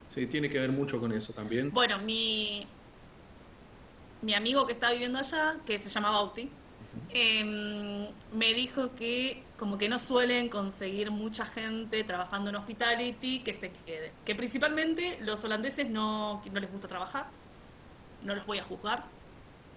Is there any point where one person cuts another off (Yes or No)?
No